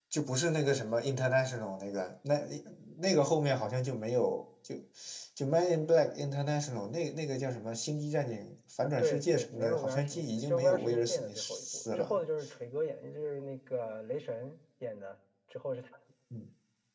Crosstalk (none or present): present